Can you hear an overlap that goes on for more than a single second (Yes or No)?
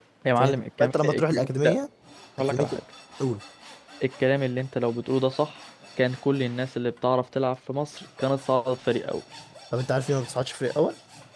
Yes